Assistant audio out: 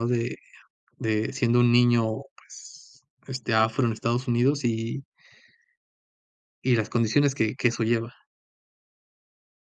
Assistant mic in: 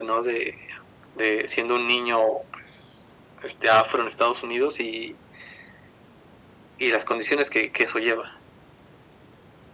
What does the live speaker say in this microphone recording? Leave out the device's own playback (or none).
none